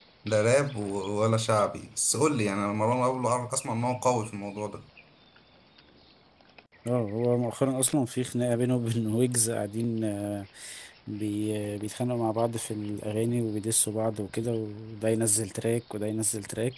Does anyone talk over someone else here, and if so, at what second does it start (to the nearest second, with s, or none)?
none